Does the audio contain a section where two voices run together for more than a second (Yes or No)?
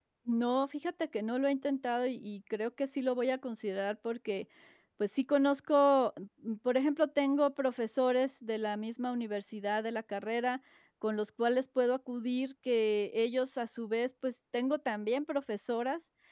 No